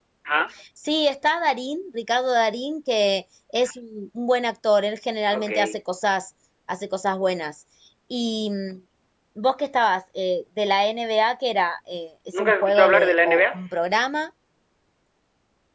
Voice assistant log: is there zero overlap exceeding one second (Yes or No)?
No